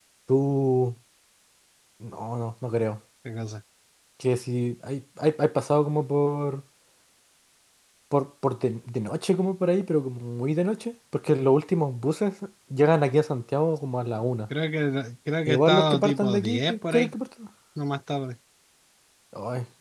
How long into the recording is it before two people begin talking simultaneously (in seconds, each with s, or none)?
15.5 s